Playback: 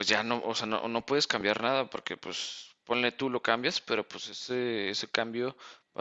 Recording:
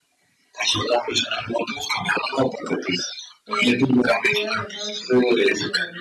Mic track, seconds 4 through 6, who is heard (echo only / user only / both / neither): both